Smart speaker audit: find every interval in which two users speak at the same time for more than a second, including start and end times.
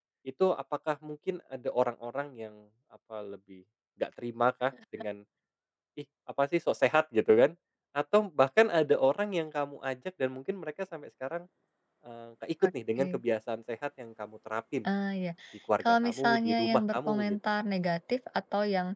15.8-17.4

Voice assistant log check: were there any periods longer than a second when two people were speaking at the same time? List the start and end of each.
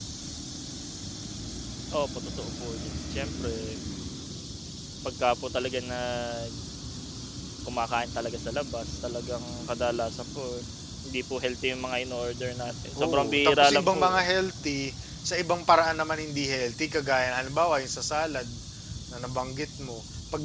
13.0-14.2

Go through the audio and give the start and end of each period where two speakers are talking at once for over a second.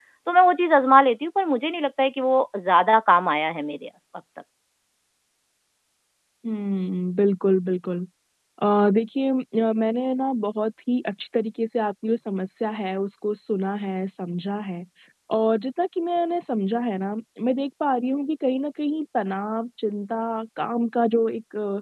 none

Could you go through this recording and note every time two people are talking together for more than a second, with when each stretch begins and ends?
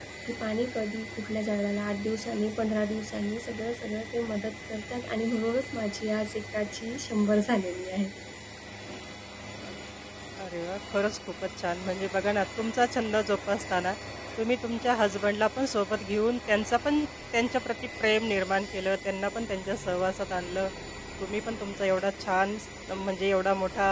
none

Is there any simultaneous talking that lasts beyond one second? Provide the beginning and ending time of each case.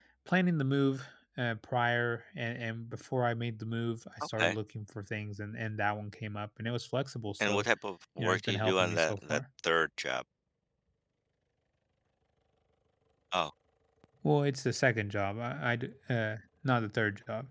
8.2-9.4

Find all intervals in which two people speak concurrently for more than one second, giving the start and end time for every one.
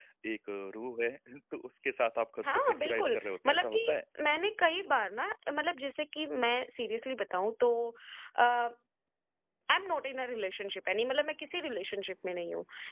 2.5-3.8

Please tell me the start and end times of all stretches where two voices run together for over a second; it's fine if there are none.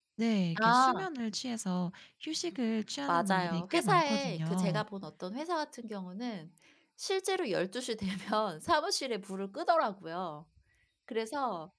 3.1-4.8

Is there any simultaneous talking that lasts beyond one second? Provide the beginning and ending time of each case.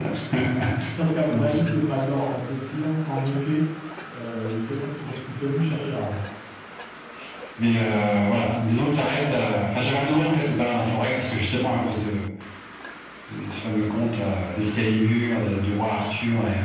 none

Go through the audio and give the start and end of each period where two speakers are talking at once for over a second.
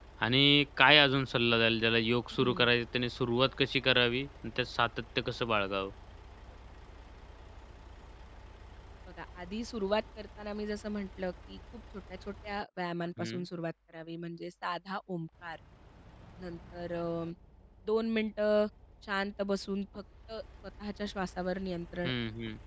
none

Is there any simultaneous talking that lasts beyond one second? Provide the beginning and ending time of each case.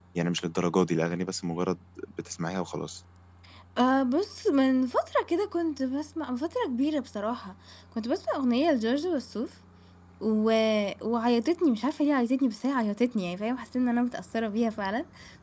none

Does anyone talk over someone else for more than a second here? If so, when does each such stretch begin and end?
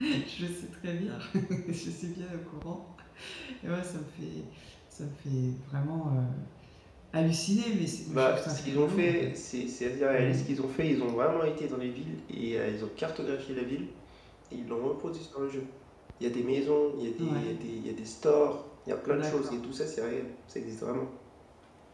8.1-9.3

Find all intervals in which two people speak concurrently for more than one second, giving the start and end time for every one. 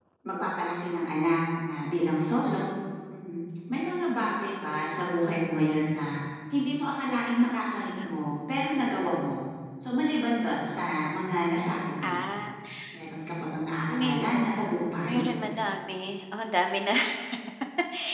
13.9-15.2

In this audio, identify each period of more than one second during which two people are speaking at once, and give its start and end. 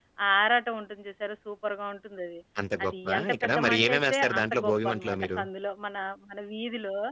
2.8-5.4

